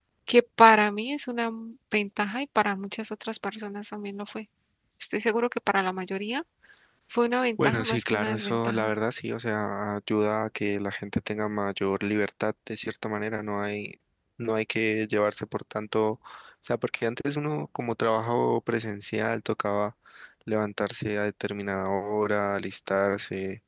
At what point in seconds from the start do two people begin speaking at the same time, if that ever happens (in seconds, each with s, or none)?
7.6 s